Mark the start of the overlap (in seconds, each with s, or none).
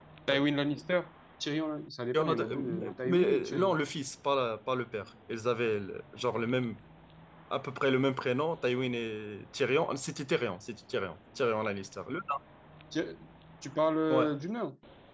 2.1 s